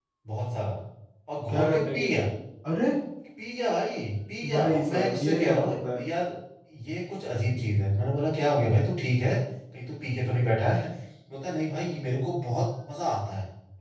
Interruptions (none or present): present